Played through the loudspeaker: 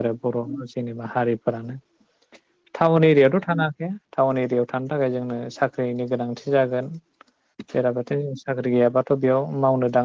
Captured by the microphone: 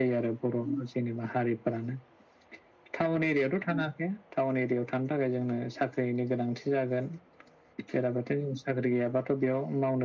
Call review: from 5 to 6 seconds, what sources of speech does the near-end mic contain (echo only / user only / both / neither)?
echo only